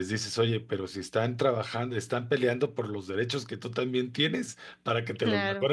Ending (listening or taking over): listening